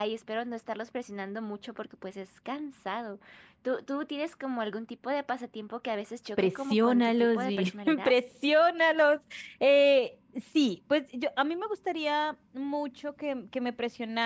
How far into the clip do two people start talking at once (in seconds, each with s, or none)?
6.4 s